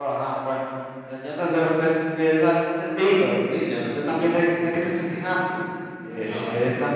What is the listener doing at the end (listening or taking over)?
listening